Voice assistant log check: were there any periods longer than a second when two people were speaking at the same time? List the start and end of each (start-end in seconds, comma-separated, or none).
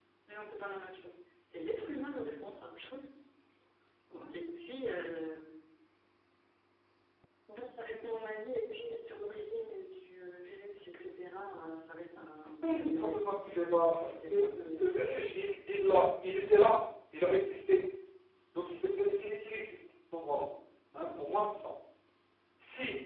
12.6-14.8